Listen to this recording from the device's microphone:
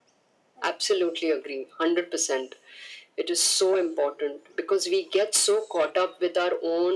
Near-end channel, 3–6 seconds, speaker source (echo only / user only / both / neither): echo only